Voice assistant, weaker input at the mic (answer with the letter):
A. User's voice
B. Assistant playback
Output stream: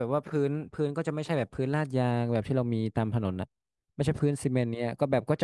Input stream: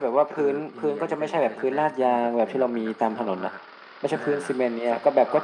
A